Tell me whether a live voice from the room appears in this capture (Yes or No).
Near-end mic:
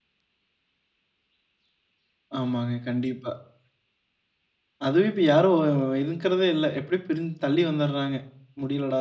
Yes